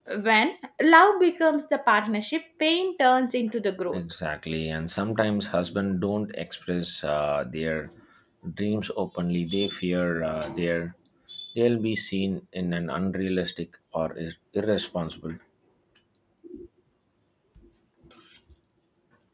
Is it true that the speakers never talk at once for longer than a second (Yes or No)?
Yes